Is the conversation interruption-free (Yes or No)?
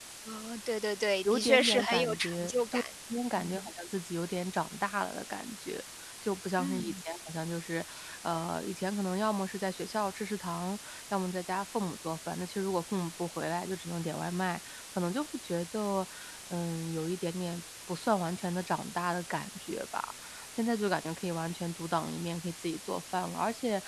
No